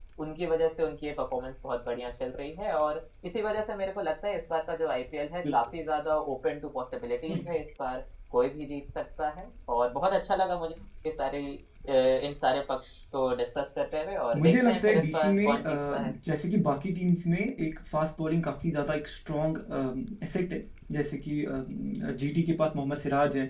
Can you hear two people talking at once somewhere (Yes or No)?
Yes